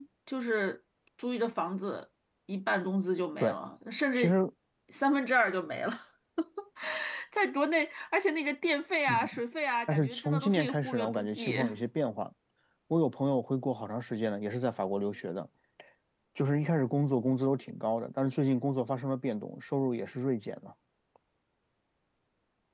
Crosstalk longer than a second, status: present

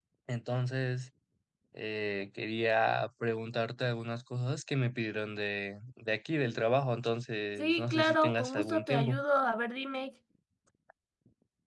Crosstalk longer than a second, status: present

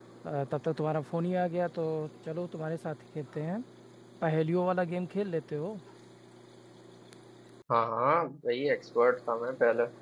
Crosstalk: none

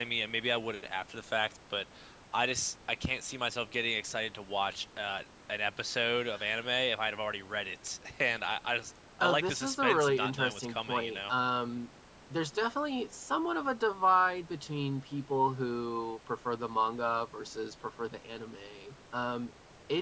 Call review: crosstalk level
present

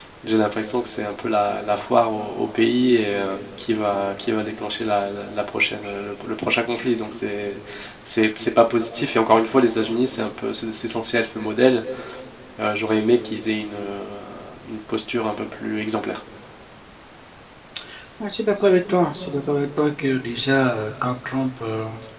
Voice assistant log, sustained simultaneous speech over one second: none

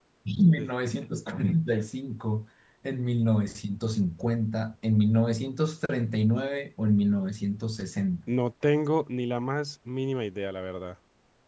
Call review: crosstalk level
none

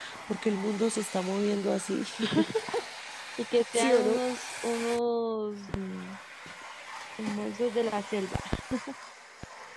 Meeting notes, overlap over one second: none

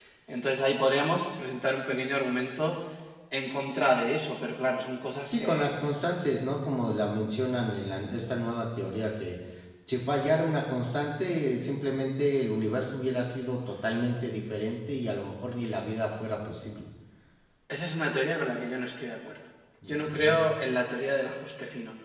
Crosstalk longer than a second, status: none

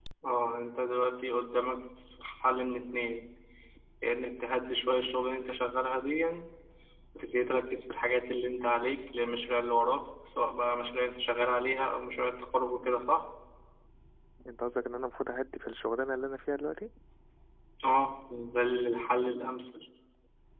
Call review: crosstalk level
none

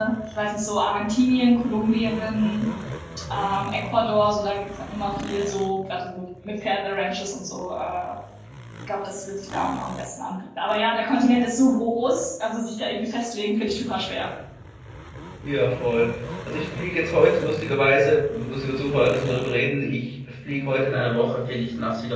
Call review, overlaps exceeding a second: none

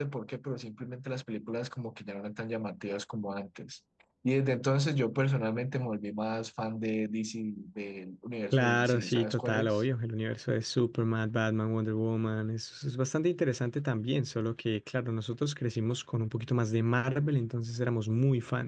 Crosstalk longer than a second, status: present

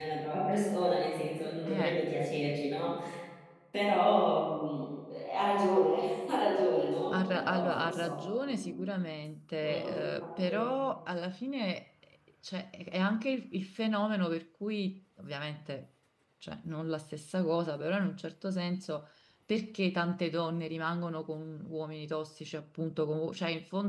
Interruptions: present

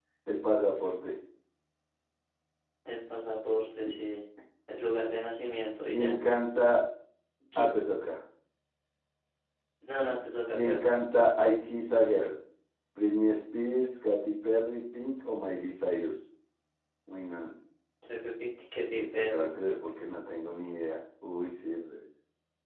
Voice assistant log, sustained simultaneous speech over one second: none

